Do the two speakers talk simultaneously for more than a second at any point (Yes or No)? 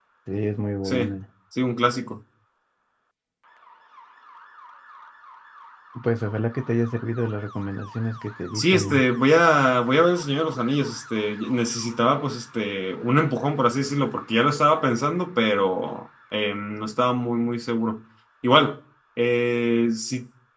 No